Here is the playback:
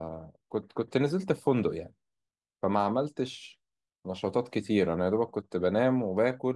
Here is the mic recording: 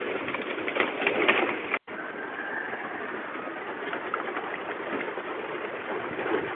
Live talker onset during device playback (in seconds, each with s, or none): none